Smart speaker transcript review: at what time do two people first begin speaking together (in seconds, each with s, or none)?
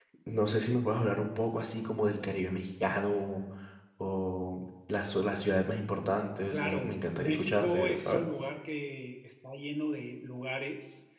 6.5 s